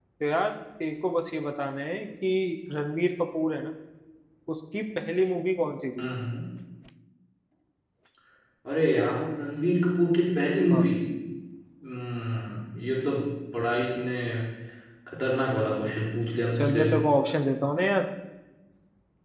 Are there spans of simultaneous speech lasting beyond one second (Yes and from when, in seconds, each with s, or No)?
No